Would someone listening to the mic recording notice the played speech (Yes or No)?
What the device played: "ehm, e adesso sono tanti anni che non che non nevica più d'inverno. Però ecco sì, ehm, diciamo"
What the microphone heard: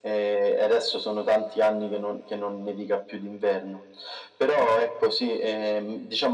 Yes